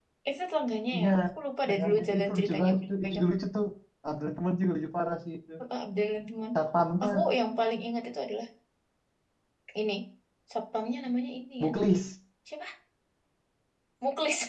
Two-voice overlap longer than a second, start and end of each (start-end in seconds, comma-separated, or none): 1.7-3.2